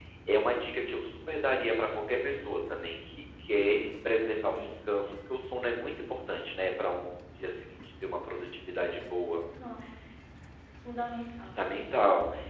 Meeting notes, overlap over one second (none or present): none